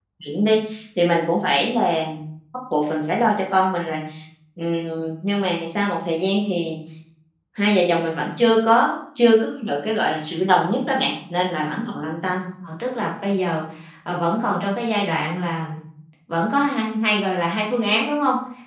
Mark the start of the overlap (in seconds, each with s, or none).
none